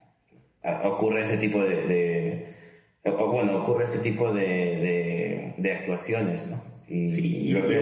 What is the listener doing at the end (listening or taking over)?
taking over